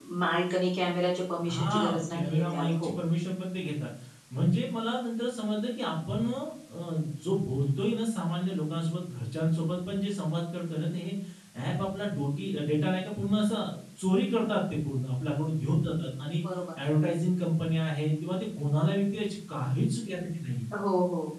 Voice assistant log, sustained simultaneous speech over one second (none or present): present